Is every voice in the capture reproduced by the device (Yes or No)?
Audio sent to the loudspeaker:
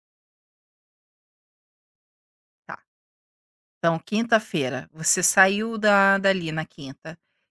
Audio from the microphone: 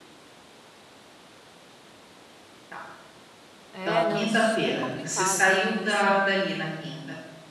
No